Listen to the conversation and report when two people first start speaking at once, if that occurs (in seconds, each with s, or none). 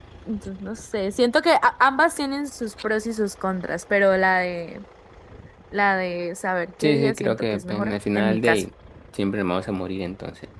6.8 s